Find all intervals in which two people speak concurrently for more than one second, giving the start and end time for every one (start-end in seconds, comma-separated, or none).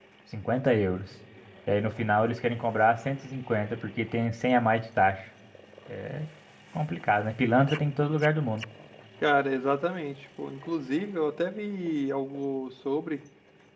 none